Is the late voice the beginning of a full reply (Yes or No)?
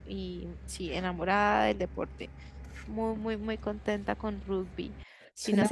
Yes